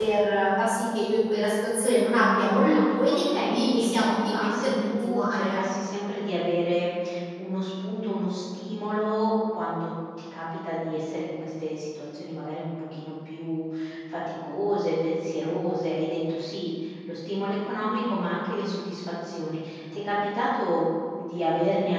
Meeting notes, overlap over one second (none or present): present